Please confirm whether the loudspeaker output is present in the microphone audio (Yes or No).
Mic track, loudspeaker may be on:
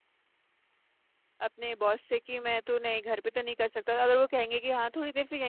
No